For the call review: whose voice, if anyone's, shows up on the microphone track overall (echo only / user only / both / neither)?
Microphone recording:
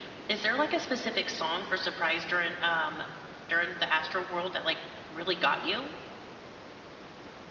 echo only